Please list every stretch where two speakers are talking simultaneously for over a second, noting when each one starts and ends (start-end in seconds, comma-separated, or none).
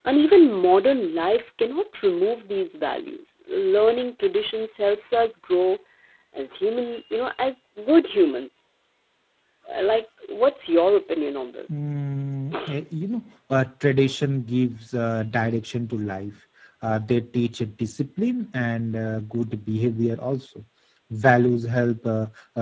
none